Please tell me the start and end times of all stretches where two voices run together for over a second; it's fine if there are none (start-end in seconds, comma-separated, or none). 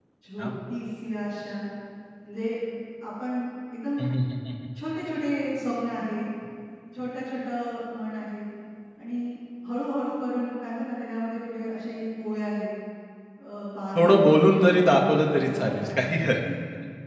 13.9-16.4